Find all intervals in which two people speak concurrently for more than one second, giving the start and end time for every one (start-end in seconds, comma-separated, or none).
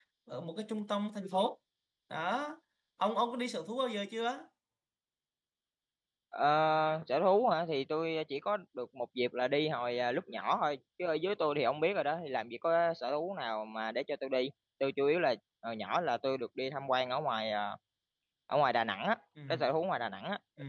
none